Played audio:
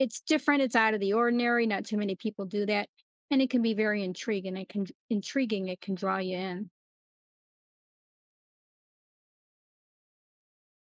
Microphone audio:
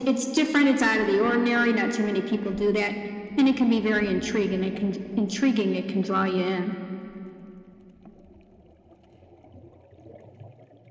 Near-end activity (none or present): none